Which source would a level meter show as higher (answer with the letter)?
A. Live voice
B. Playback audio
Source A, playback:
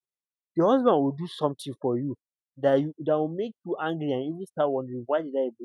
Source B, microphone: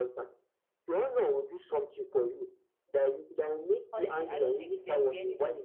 B